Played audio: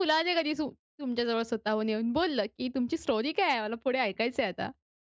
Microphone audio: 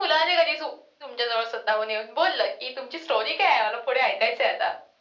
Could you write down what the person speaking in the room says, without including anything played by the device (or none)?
none